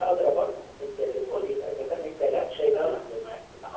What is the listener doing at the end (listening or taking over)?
listening